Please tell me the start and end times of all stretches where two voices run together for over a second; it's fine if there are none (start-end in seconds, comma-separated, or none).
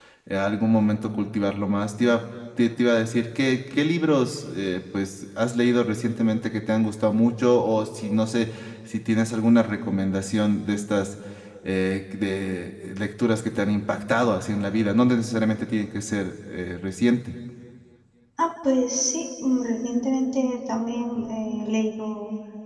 none